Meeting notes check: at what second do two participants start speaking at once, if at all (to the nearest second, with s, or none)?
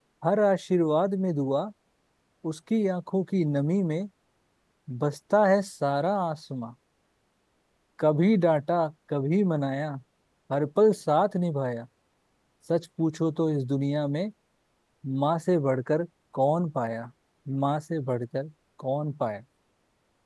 none